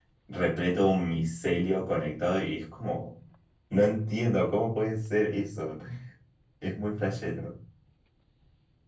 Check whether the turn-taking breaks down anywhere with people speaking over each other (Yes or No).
No